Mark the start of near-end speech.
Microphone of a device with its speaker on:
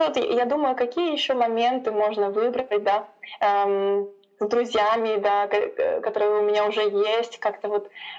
none

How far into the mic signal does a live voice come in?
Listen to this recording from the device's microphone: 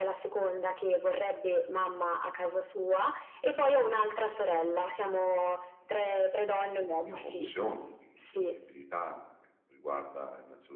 7.0 s

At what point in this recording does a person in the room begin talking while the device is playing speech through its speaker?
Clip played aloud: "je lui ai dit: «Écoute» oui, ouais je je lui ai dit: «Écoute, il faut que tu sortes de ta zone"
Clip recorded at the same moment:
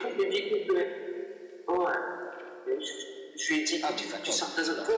3.8 s

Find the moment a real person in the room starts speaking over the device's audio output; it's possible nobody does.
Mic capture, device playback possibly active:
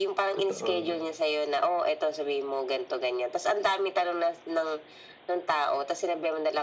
0.4 s

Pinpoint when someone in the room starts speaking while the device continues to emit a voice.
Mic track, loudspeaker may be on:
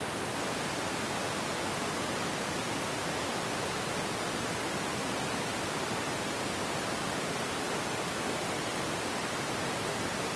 none

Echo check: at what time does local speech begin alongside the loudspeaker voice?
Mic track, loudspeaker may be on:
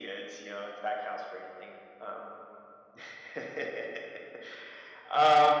none

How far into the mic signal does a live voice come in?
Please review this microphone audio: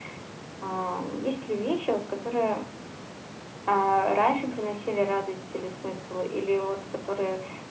none

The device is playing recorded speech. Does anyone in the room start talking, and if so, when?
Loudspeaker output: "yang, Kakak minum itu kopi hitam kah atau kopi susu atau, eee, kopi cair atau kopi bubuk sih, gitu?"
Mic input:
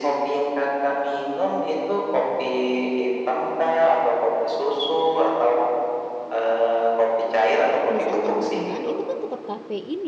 7.9 s

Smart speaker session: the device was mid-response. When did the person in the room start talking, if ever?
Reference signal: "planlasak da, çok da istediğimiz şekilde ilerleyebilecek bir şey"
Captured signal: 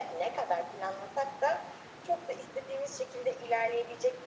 none

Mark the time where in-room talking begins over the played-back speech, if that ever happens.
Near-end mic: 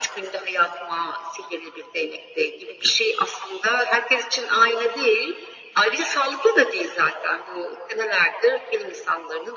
none

